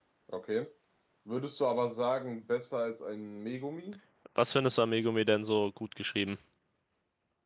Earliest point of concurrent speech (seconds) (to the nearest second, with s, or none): none